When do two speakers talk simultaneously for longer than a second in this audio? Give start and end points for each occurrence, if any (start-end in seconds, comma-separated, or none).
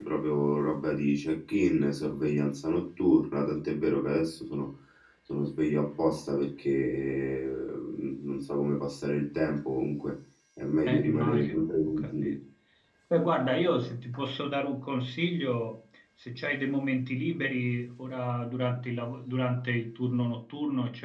10.8-12.4